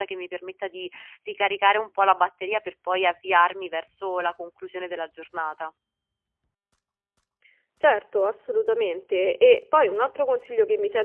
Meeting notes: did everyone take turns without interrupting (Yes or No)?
Yes